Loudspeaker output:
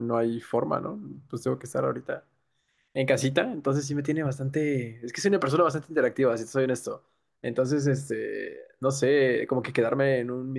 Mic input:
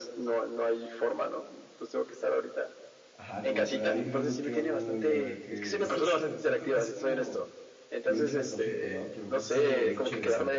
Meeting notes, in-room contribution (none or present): present